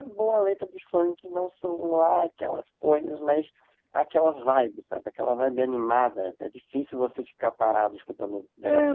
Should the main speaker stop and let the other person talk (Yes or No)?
Yes